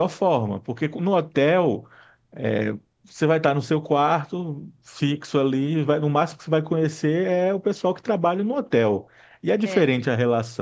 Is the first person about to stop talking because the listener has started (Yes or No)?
No